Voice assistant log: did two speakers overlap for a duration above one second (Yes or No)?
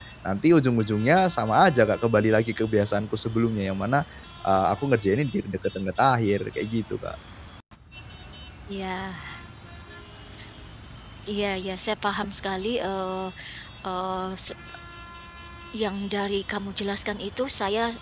No